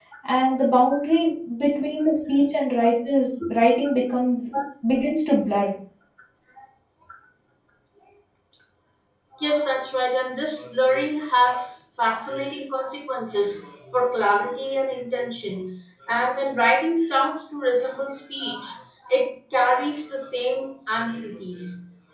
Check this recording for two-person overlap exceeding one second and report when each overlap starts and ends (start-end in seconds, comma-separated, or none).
none